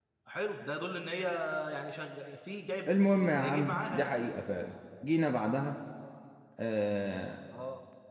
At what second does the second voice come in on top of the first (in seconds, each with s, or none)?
2.9 s